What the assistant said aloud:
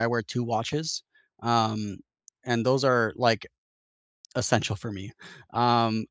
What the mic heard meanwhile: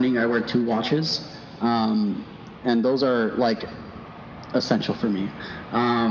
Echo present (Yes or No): Yes